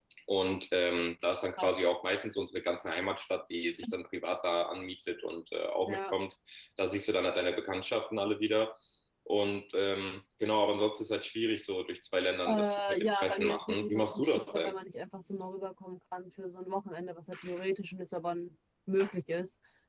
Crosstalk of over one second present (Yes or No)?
Yes